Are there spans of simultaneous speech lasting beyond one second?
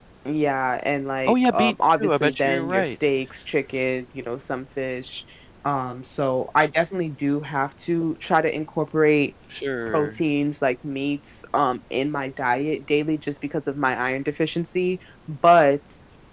Yes, from 1.3 s

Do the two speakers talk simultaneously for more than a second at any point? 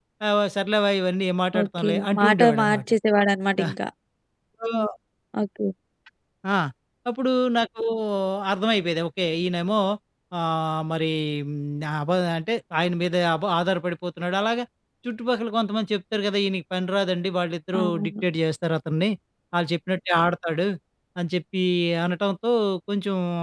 Yes, from 1.6 s

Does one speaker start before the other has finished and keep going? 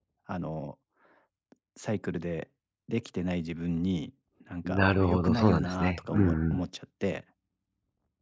Yes, from 4.6 s

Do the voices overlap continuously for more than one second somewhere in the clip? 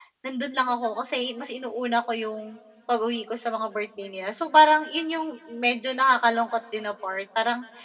No

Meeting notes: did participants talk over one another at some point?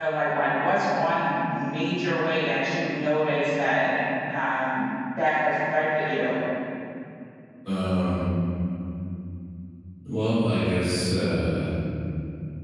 No

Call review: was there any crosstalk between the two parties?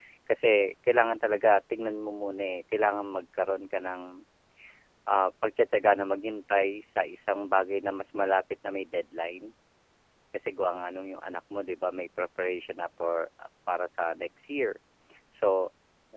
No

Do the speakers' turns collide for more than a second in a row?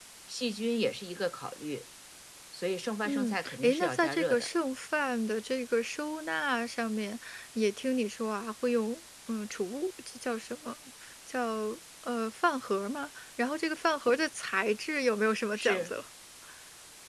Yes, from 3.0 s

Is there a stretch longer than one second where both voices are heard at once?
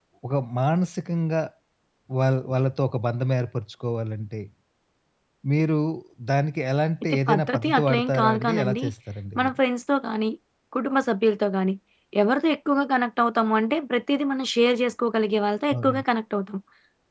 Yes, from 7.0 s

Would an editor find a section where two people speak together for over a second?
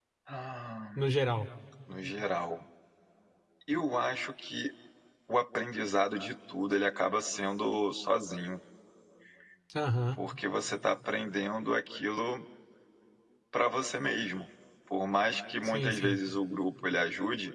No

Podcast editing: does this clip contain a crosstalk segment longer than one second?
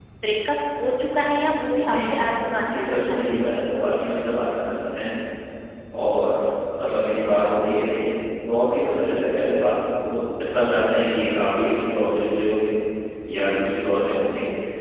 Yes, from 1.9 s

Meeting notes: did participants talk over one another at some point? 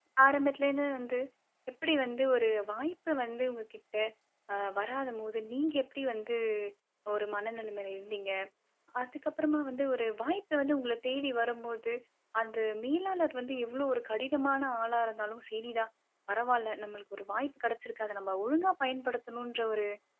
No

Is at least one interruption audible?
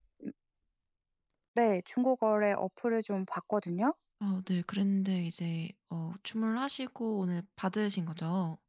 No

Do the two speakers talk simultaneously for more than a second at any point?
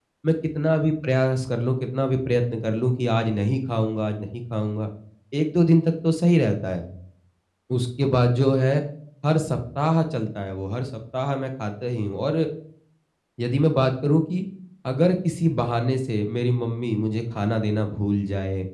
No

